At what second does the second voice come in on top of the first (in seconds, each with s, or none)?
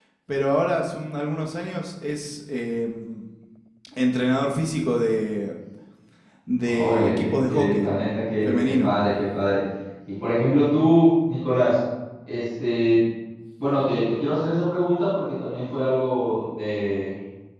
6.7 s